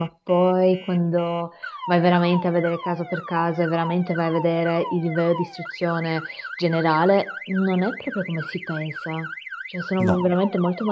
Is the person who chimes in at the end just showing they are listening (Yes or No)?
Yes